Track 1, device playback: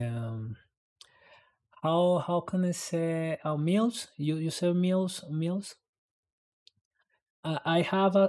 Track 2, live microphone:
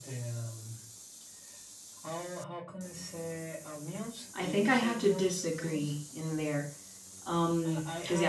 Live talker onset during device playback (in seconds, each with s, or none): 4.3 s